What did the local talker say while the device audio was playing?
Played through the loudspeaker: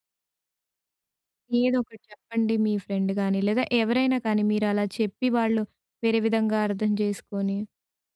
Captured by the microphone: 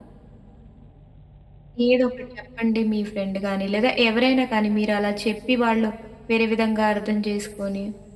none

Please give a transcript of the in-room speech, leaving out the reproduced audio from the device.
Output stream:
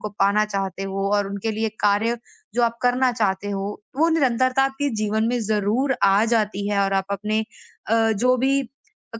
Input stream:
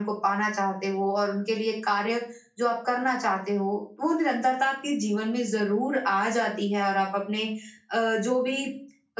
none

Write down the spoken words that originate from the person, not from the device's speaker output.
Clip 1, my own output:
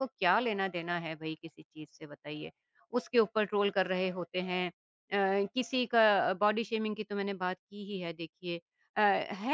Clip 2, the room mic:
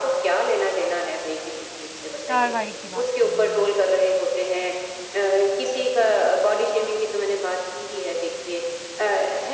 कार्रवाई की बात कर रही हूँ।

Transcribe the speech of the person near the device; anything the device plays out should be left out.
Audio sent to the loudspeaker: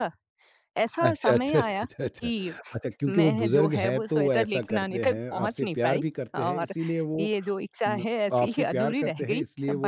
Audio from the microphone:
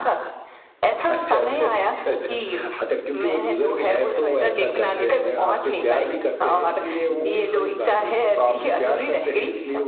नहीं, कोई बात नहीं, कोई बात नहीं।

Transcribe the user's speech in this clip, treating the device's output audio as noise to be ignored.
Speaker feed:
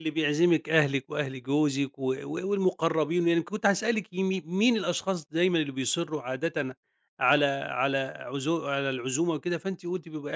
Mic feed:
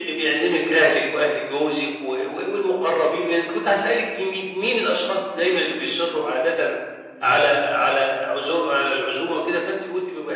none

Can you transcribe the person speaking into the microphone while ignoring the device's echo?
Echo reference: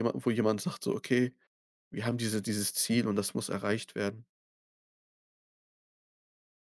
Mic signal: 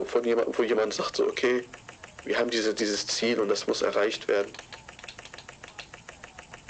none

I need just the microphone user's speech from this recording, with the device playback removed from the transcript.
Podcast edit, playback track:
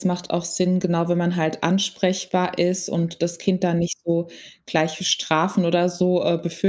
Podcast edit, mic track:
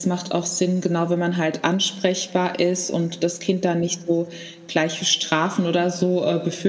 none

